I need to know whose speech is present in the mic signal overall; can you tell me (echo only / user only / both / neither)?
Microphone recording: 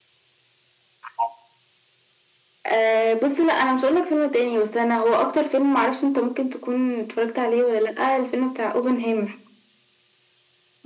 echo only